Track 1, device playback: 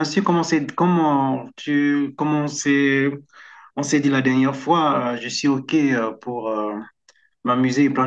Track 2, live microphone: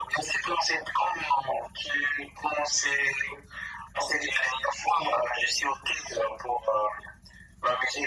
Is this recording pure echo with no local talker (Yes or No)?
Yes